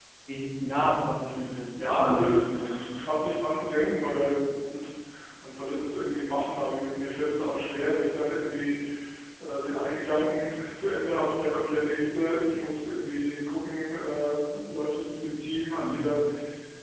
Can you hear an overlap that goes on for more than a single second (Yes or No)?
Yes